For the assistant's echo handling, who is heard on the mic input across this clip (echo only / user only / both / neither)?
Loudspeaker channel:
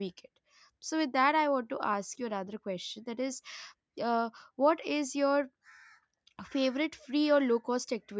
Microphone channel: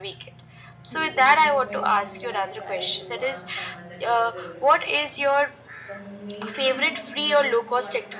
both